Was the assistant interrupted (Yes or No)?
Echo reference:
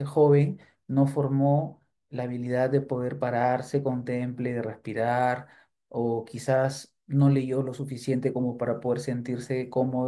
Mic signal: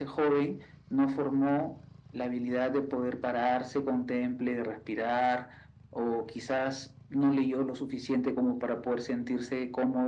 No